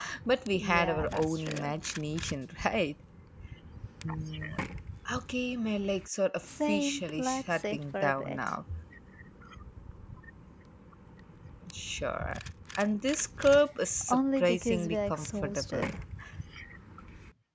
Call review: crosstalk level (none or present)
present